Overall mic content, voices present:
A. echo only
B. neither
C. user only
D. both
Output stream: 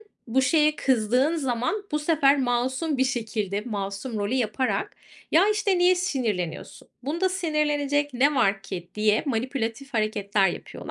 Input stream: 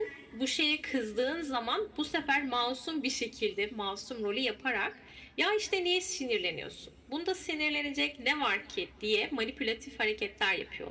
A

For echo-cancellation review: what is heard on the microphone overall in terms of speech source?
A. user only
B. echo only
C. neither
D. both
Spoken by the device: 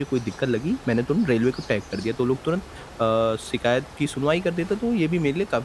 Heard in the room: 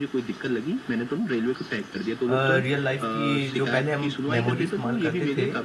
D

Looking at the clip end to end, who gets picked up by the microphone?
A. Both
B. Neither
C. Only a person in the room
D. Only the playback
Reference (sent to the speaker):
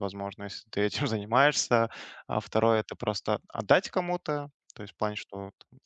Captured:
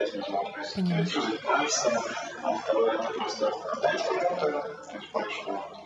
A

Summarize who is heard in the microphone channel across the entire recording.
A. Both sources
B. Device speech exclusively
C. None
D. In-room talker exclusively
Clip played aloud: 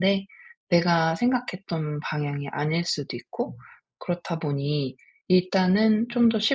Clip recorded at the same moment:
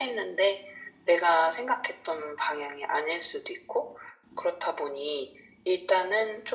B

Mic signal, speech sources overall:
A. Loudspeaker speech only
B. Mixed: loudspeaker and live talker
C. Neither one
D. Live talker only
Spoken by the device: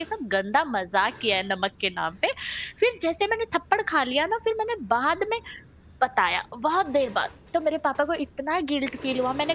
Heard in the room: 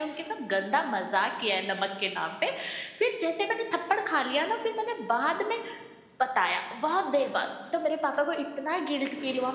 A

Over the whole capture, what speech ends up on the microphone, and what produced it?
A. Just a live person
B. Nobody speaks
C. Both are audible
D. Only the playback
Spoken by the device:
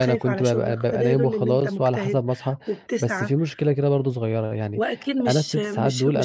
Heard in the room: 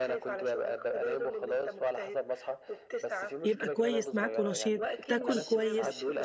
C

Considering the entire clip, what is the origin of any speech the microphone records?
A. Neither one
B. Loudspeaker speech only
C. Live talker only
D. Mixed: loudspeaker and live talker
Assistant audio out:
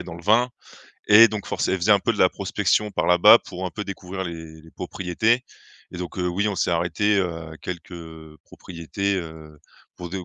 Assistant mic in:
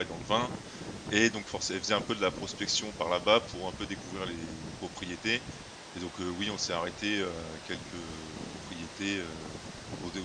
B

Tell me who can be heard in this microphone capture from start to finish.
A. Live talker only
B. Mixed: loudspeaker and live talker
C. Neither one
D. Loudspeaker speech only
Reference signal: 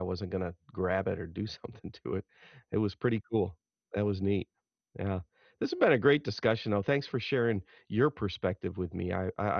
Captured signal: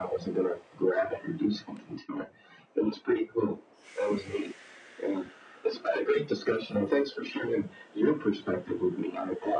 D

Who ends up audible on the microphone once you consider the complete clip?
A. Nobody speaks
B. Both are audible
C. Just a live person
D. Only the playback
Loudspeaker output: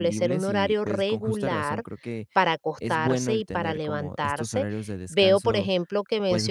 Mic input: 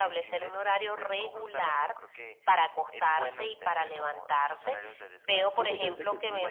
B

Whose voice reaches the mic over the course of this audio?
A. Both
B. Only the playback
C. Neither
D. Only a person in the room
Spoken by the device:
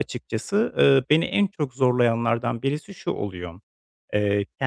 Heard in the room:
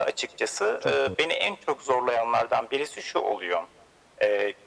A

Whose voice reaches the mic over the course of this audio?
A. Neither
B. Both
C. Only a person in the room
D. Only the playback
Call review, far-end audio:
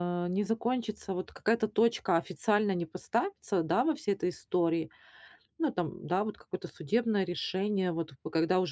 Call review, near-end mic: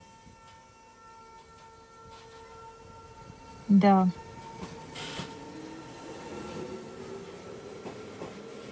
C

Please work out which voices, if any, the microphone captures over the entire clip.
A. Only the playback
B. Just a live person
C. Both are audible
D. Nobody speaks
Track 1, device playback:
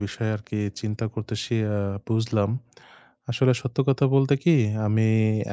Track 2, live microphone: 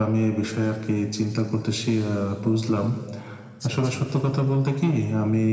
C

